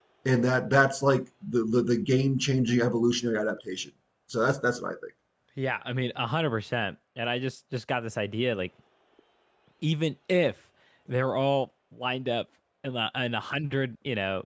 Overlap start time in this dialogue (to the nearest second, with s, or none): none